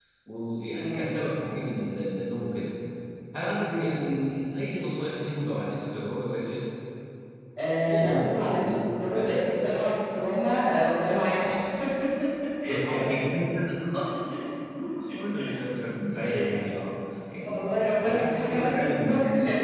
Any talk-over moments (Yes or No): Yes